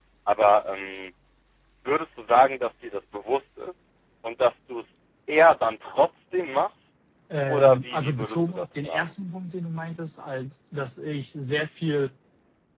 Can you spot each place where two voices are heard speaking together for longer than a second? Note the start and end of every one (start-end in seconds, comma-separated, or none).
7.5-9.0